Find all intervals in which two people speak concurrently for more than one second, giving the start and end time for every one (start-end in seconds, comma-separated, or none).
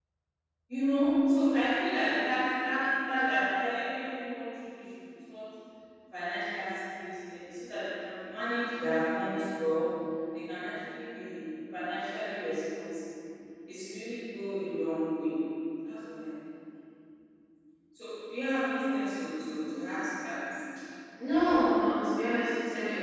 none